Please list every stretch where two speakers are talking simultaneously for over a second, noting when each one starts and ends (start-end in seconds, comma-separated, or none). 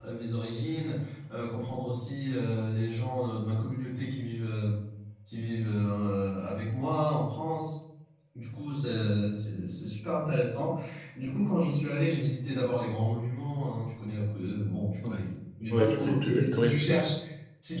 15.7-17.0